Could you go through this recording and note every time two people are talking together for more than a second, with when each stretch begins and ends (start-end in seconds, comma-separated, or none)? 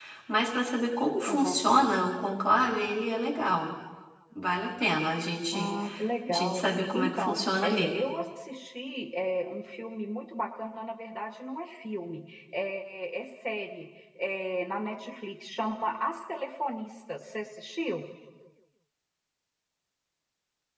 6.3-8.0